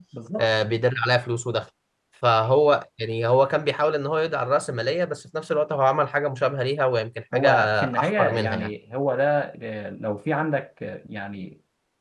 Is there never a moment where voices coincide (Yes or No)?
No